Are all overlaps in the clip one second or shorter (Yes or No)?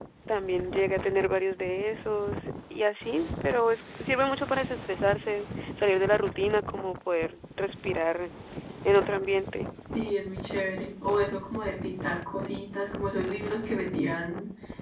Yes